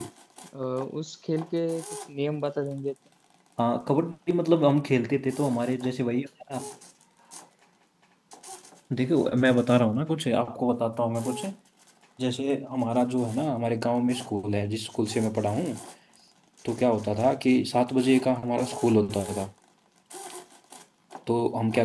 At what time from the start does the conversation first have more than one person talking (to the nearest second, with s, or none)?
none